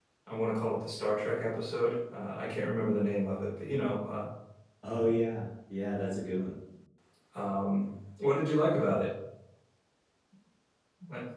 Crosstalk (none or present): none